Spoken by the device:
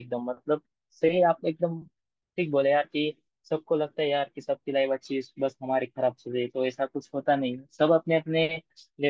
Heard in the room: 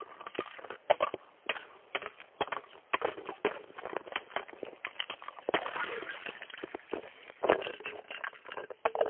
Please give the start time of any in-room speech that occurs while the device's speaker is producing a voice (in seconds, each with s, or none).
none